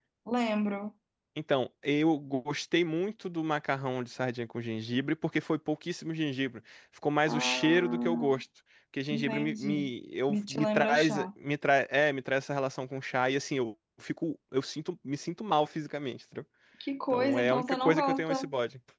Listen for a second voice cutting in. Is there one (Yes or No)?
Yes